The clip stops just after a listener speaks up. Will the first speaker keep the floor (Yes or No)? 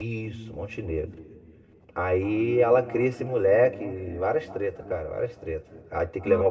Yes